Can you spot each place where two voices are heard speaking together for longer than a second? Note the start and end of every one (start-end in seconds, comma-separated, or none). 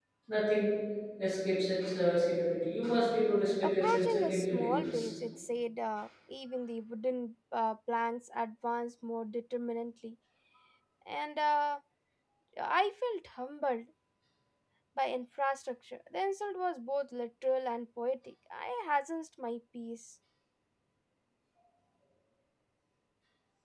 3.6-5.1